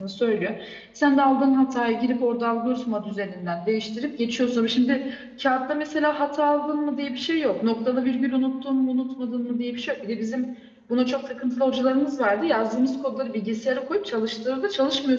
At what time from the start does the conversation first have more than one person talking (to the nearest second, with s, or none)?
none